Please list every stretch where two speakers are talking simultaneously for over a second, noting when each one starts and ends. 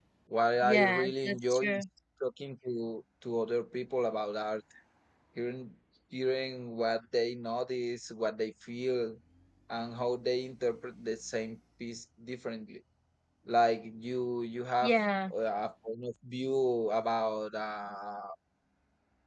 0.6-1.8

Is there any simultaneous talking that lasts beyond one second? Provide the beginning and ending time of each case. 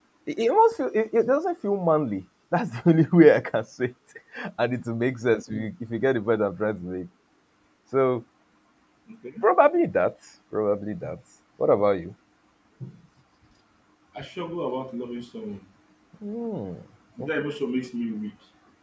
none

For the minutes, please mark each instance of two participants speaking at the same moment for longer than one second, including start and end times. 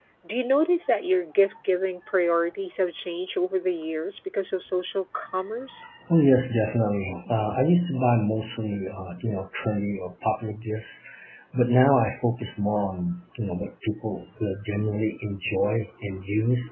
none

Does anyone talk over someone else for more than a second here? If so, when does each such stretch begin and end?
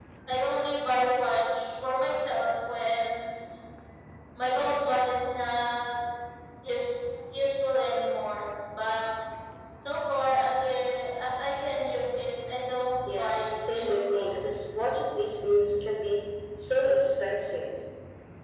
13.1-14.4

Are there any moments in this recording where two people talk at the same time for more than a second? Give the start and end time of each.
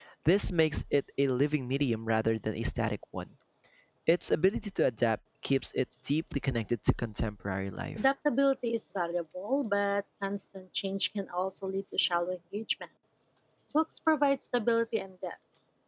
none

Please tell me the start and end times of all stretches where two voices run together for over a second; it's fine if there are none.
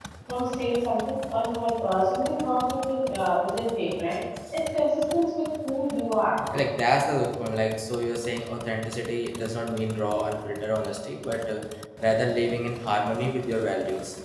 none

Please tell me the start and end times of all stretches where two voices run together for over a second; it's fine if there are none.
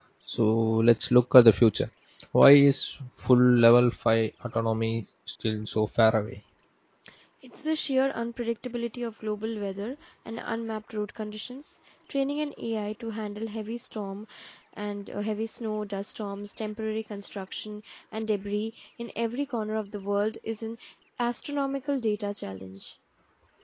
none

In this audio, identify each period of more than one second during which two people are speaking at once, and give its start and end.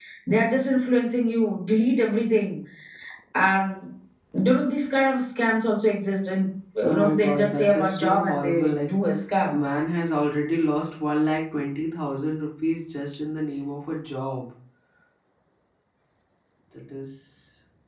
6.8-8.9

